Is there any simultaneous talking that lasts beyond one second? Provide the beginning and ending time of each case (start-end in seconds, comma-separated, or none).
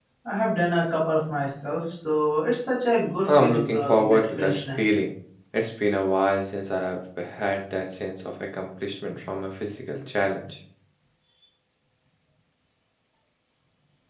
3.3-4.9